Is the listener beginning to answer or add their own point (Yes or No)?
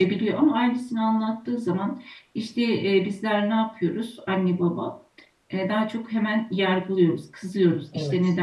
No